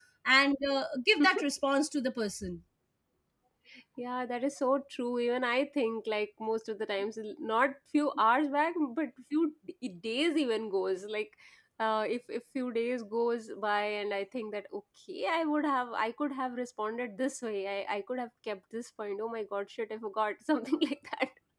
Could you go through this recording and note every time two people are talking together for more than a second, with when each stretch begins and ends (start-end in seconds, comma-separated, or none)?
none